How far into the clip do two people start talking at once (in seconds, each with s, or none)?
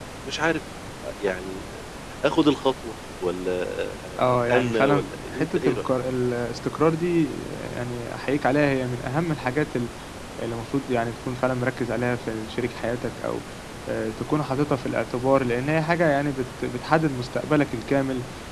4.5 s